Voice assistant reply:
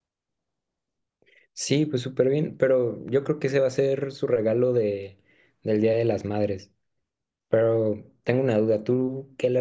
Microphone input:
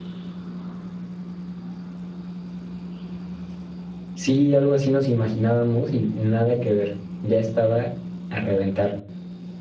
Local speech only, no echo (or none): Sí, algo así nos imaginábamos y nada que ver. Ya estaba a reventar.